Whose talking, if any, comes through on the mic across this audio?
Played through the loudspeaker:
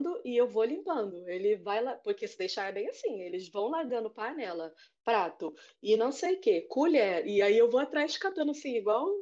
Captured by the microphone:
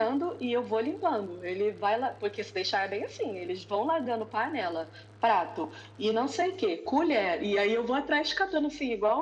echo only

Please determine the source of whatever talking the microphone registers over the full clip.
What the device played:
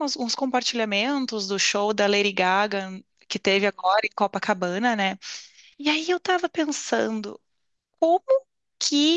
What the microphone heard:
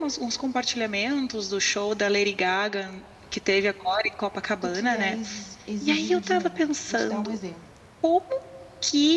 both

